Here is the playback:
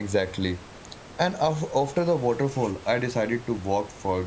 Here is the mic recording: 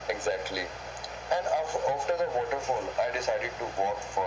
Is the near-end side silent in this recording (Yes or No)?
Yes